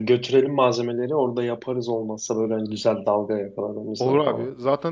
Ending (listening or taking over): taking over